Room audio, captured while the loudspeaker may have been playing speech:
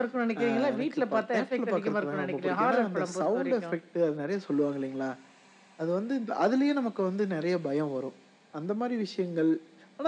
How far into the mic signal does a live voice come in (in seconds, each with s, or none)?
none